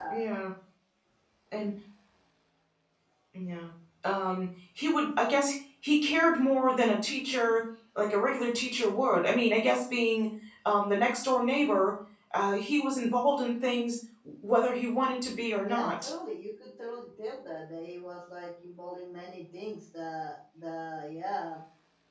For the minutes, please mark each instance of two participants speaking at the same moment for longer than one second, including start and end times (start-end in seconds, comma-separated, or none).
none